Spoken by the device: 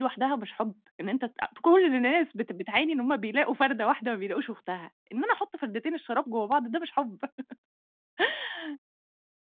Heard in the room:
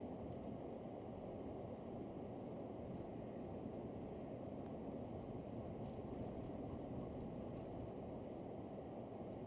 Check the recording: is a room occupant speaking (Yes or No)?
No